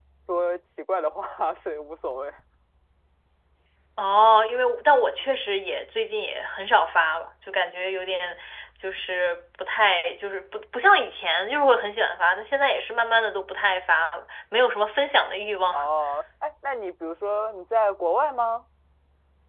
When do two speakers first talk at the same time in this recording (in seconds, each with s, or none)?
none